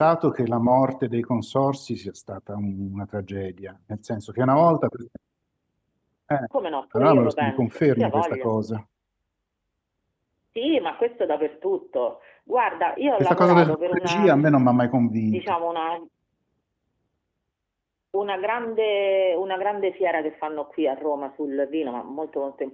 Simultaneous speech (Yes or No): Yes